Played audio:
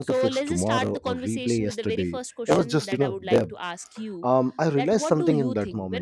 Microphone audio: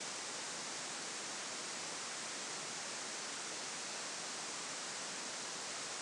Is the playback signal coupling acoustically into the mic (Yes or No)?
No